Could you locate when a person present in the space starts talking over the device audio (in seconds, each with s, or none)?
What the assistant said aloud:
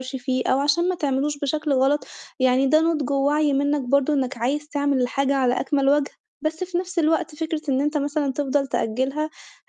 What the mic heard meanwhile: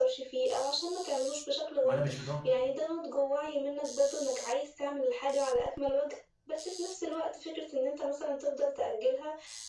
1.8 s